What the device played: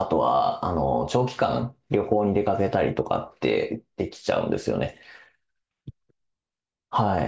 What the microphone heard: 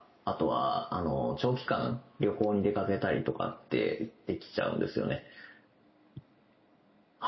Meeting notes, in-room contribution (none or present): none